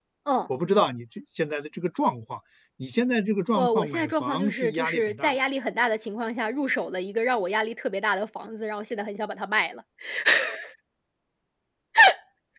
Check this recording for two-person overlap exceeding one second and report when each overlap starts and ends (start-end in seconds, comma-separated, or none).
3.5-5.4